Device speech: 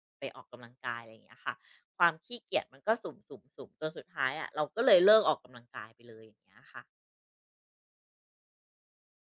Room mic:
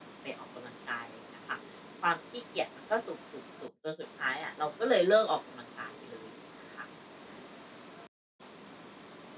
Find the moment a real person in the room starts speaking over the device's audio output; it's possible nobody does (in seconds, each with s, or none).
none